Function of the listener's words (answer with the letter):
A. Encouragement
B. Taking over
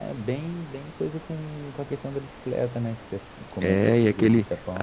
B